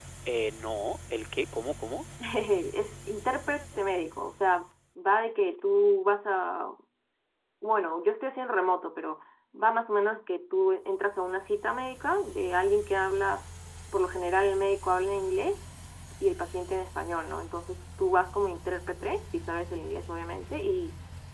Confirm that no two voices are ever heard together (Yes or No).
Yes